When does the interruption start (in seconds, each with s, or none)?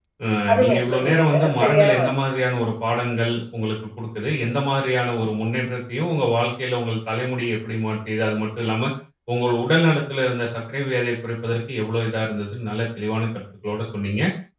0.5 s